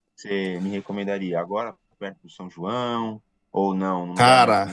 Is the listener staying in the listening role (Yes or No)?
Yes